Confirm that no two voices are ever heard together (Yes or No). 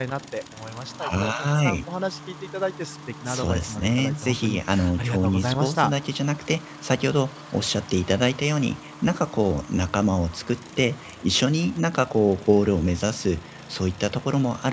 No